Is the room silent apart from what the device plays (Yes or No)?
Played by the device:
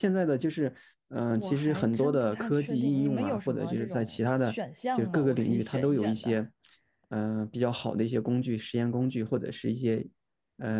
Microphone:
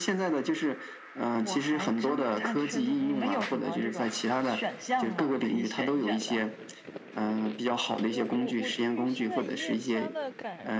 No